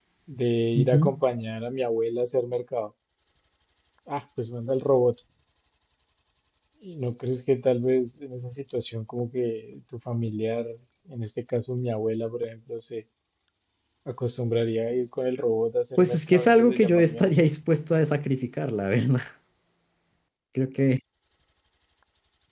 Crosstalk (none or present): present